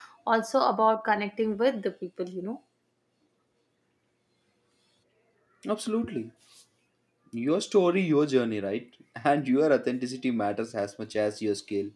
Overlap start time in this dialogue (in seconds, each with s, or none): none